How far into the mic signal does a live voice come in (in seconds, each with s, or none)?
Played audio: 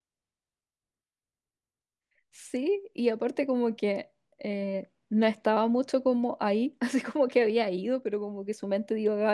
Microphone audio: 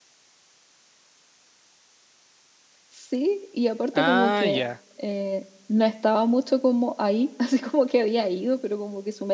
3.9 s